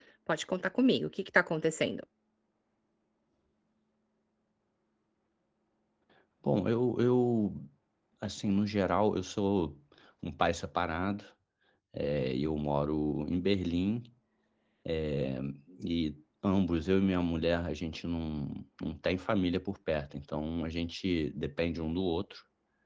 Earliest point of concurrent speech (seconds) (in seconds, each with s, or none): none